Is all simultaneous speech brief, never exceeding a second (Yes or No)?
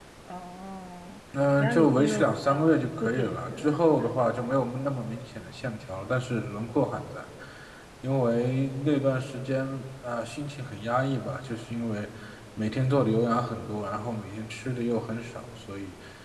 No